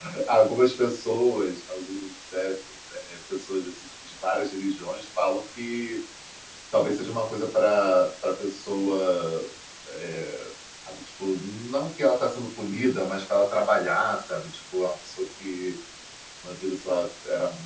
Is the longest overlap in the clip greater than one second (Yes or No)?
No